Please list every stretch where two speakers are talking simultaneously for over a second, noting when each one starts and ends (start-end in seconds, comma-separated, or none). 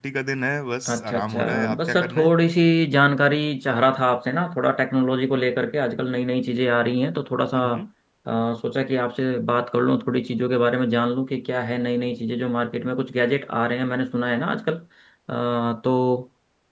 0.9-2.4